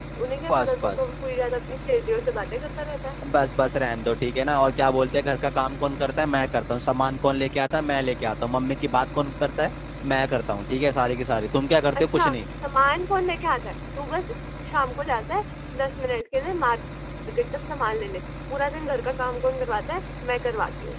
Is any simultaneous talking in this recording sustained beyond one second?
No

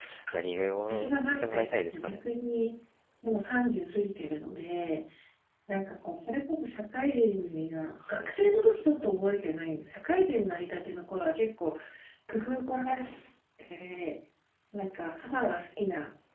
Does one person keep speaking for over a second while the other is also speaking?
Yes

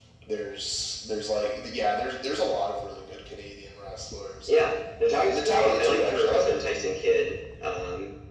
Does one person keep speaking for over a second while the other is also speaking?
Yes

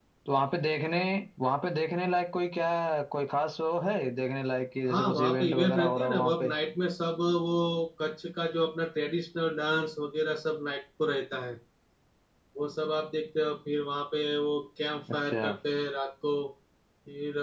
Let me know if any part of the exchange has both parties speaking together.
Yes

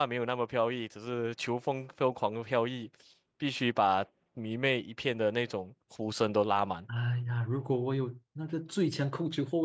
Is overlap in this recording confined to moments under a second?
Yes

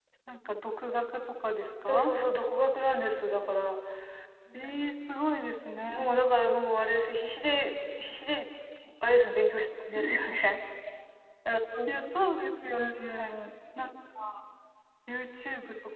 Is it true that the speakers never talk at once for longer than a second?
Yes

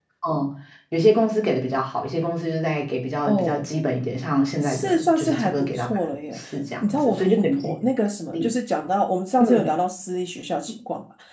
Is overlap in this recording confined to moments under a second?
No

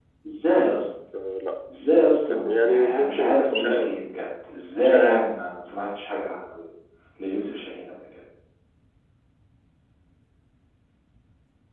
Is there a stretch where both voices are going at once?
Yes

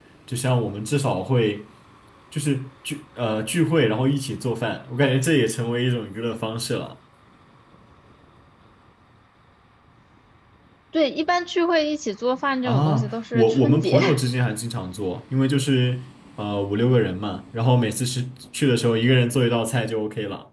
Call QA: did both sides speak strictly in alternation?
No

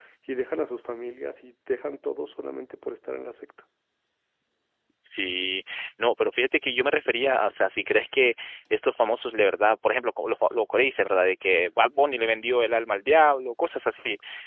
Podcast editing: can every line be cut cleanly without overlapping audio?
Yes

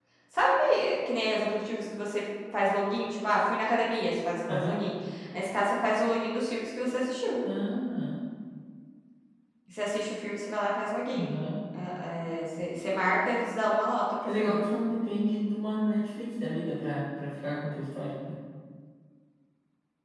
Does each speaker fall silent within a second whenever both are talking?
Yes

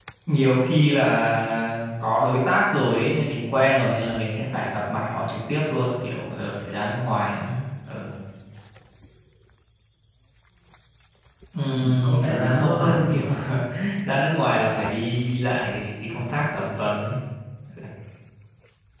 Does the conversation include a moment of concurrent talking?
Yes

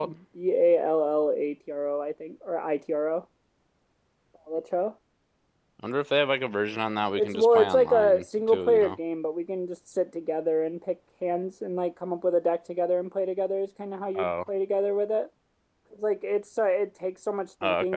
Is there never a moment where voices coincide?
No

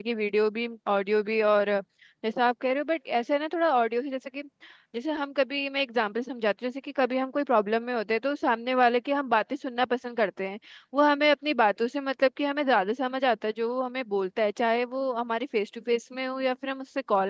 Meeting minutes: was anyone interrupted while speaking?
No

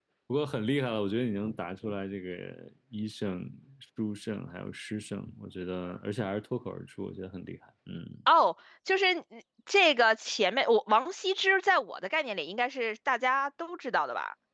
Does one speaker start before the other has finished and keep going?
No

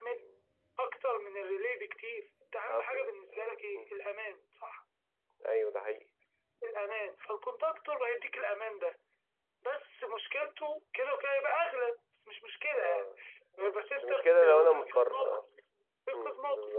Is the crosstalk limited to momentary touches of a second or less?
No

